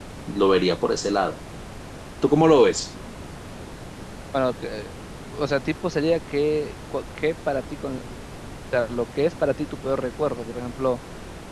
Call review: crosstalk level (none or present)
none